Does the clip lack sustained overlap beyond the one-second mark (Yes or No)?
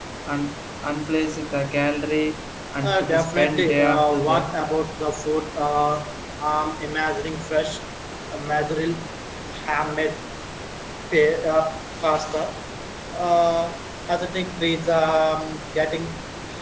No